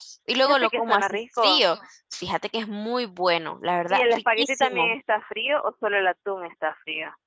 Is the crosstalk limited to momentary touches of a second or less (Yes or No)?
No